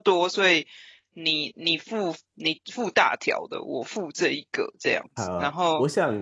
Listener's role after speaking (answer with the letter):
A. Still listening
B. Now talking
B